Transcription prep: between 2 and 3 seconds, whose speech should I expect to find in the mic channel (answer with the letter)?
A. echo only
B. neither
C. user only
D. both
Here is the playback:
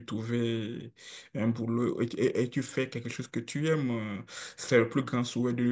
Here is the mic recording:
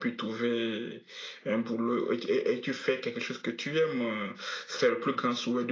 A